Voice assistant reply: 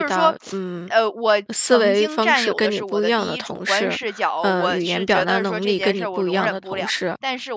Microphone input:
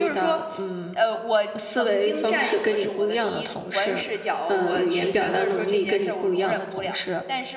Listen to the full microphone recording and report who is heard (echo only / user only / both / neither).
echo only